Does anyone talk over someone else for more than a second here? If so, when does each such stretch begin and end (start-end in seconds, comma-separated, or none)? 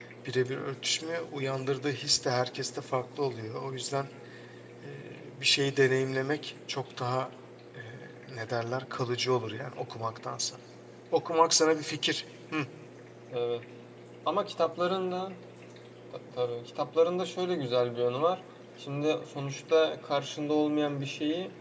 none